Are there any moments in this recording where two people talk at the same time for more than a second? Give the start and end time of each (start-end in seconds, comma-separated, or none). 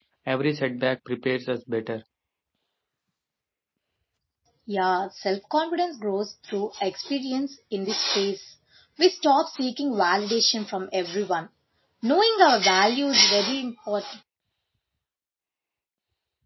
none